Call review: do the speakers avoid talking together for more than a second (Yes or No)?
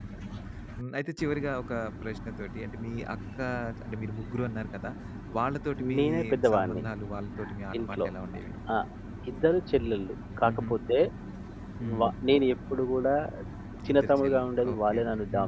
No